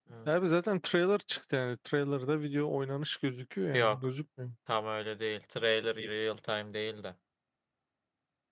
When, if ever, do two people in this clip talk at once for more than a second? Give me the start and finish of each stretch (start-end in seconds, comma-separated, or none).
none